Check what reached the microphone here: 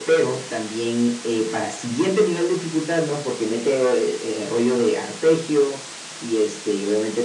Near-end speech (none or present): none